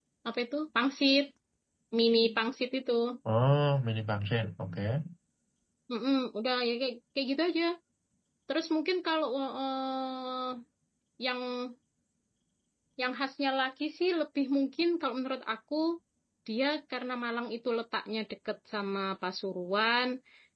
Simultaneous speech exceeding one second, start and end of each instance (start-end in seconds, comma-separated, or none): none